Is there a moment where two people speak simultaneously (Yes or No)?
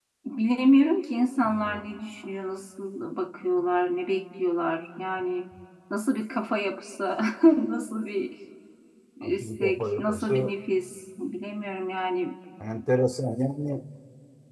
Yes